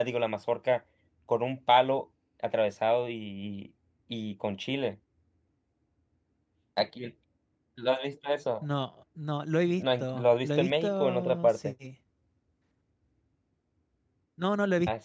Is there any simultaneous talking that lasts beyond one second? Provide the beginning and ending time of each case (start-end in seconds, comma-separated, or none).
9.8-11.7